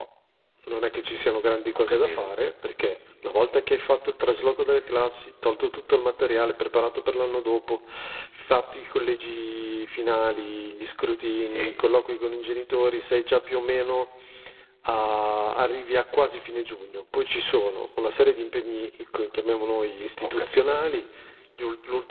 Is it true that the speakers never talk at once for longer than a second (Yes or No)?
Yes